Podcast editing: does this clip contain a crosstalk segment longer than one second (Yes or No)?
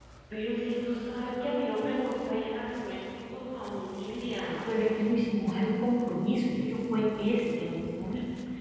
No